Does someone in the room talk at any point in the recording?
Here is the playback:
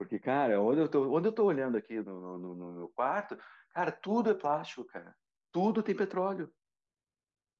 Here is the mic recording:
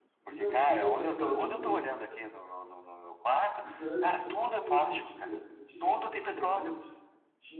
Yes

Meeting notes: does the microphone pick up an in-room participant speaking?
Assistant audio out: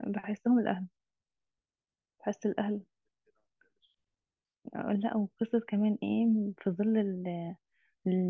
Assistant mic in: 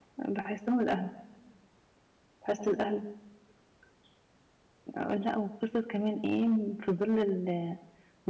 No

